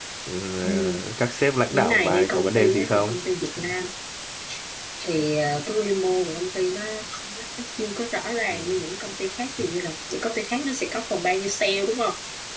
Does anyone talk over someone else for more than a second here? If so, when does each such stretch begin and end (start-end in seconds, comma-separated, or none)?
1.7-3.1